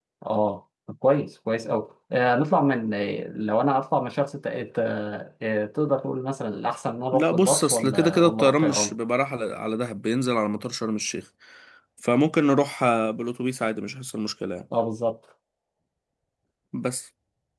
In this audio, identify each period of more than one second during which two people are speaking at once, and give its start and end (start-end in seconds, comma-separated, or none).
7.1-8.9